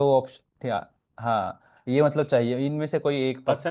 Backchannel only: No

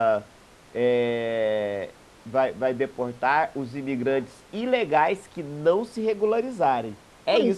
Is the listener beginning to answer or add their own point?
No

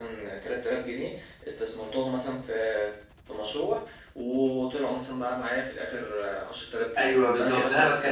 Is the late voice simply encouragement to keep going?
No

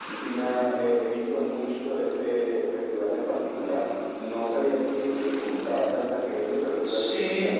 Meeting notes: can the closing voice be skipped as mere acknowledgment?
No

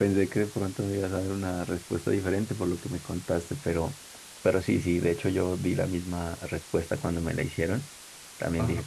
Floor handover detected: No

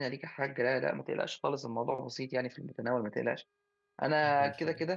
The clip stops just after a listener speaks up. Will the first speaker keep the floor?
Yes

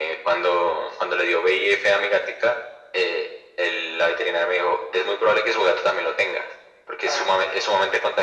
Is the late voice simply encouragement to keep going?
Yes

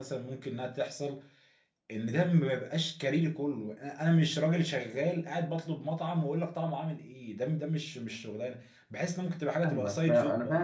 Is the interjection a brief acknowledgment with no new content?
No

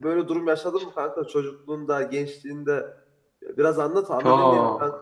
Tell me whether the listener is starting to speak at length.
Yes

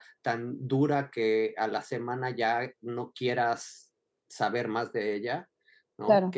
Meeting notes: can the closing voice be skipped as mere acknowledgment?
Yes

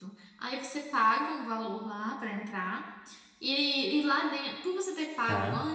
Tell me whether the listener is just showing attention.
Yes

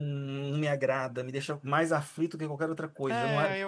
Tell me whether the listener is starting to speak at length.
Yes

